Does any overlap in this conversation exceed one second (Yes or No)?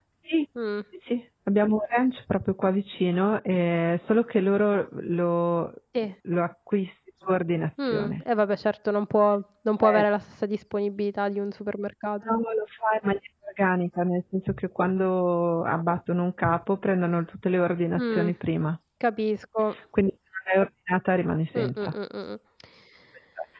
No